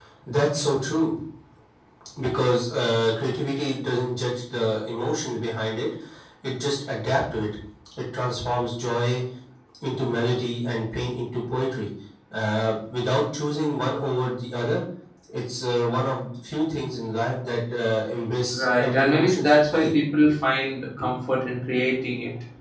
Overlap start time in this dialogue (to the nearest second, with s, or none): 19 s